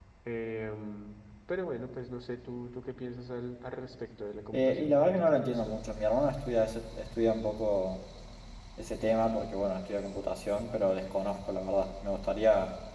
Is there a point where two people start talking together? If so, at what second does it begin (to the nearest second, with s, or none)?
5 s